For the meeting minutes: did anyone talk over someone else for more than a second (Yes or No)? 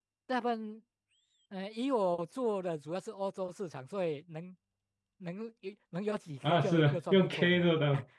Yes